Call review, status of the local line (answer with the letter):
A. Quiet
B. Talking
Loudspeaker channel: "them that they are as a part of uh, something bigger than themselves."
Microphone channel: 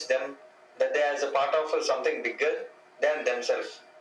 A